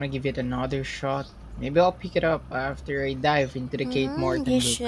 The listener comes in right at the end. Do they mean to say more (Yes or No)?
Yes